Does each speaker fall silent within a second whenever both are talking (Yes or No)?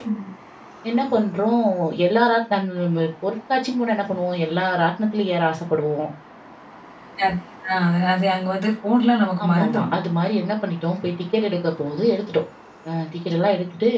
Yes